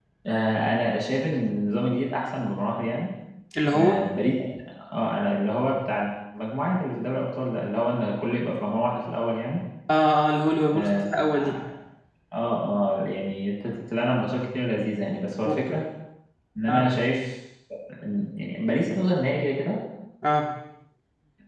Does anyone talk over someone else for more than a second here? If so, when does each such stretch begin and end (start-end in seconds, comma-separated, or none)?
none